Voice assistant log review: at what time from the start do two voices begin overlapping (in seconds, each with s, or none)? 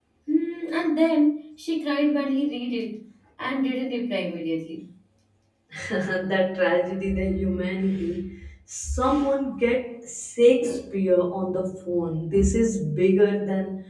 none